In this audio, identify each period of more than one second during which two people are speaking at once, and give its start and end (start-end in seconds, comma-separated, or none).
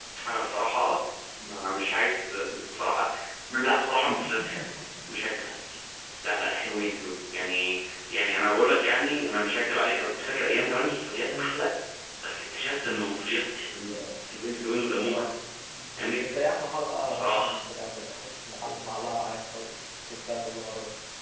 none